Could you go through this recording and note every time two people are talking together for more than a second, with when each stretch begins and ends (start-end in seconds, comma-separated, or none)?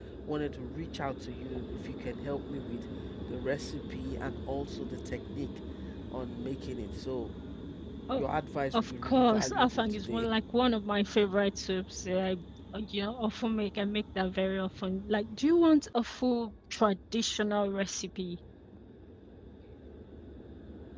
8.7-10.3